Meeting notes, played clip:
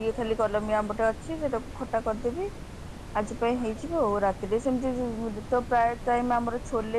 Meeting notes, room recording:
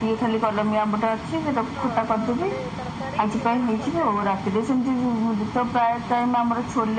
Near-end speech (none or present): present